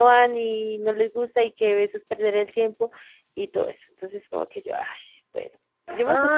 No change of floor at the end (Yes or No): No